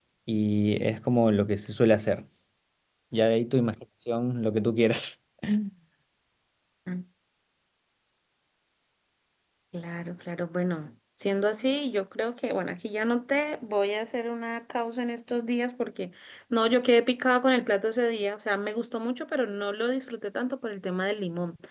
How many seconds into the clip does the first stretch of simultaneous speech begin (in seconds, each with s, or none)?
none